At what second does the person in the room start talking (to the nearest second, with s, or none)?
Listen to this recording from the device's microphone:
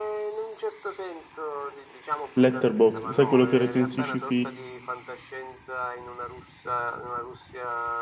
2 s